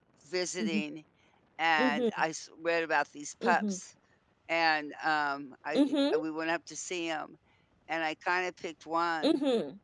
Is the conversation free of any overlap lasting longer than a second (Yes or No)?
Yes